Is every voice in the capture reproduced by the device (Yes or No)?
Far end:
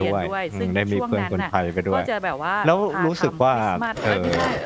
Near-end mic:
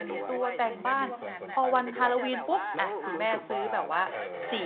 No